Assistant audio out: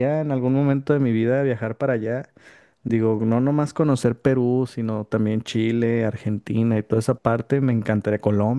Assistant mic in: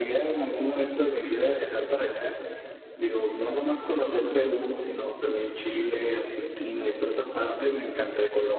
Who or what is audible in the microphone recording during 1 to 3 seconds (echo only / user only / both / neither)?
echo only